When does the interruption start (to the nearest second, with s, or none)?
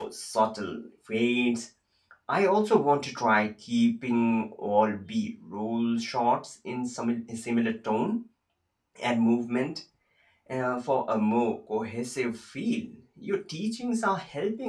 none